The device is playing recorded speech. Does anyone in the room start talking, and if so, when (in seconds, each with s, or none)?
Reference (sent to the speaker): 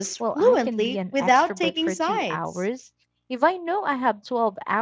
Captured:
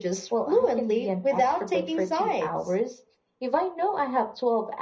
none